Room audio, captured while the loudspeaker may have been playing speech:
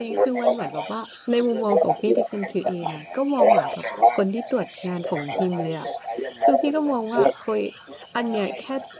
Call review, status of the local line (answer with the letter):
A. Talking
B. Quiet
A